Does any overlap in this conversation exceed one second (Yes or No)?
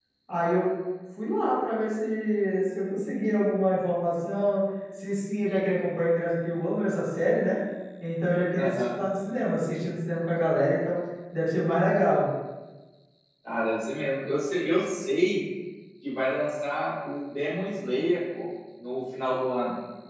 No